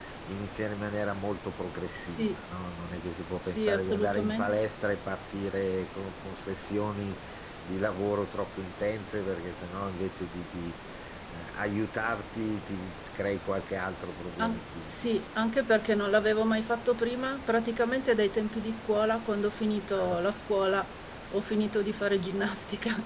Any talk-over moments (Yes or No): Yes